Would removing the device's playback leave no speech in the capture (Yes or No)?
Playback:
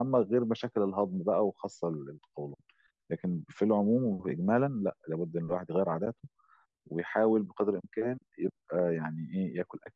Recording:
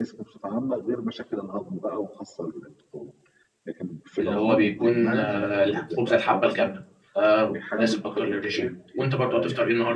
No